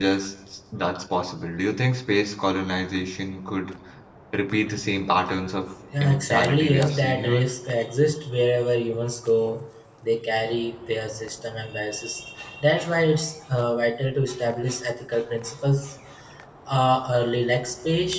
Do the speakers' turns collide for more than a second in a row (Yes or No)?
Yes